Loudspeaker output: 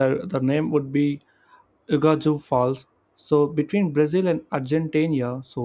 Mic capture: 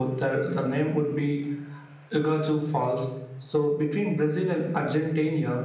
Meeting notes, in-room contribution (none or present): none